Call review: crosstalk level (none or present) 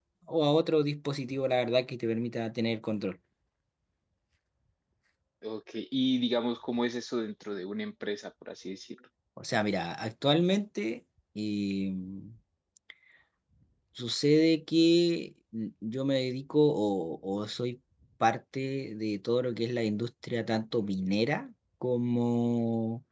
none